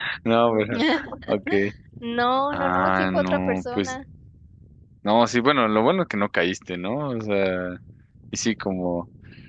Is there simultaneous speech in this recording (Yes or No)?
Yes